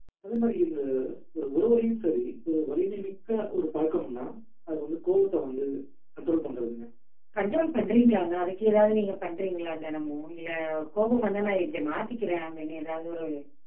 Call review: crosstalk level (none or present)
none